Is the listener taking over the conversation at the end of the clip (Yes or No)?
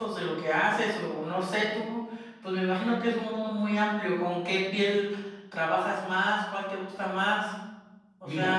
Yes